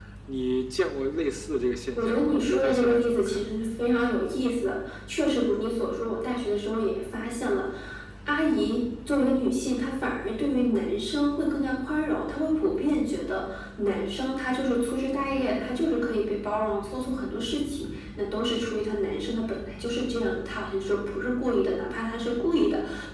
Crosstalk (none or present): present